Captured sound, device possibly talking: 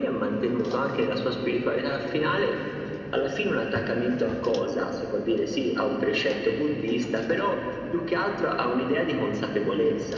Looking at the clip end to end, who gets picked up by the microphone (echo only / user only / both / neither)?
echo only